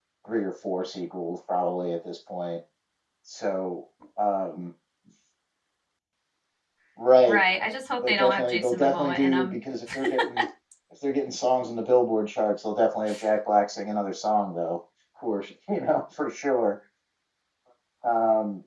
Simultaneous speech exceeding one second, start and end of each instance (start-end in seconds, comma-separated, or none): 8.1-9.6